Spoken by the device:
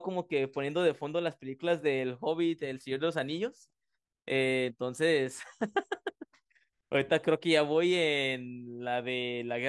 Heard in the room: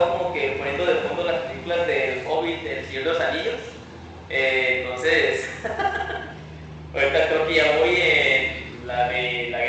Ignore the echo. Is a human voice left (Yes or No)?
No